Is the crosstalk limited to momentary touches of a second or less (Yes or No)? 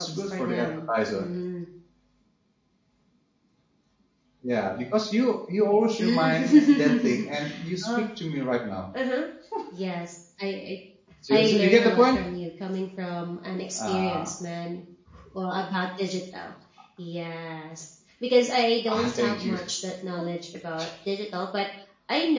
No